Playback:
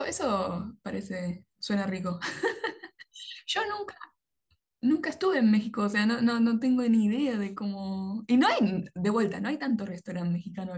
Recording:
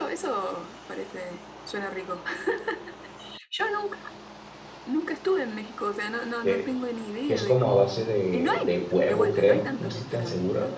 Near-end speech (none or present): present